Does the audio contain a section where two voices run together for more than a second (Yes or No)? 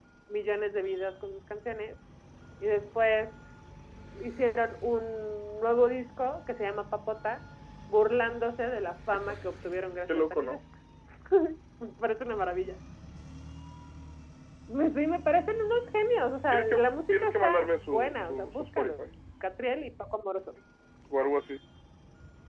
Yes